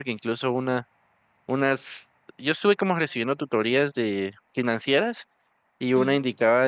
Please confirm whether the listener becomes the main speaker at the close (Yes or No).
No